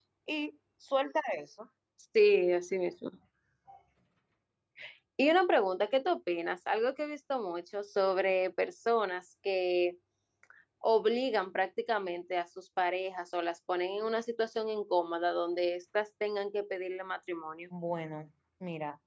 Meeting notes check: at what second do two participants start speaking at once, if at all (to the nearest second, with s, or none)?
none